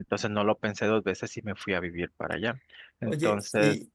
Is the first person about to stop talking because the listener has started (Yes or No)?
Yes